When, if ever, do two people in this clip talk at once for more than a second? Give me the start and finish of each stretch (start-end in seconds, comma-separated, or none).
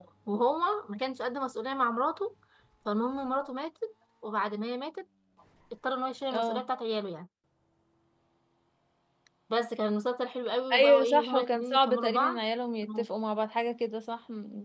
10.7-12.4